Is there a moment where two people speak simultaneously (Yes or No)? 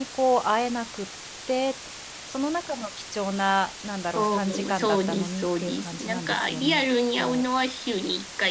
Yes